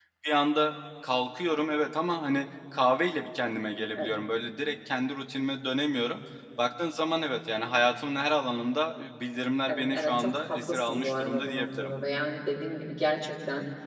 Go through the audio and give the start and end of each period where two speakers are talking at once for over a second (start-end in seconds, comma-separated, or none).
9.7-11.9